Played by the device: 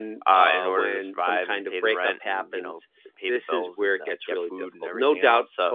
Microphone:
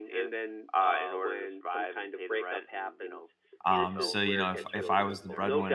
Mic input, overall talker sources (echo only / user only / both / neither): both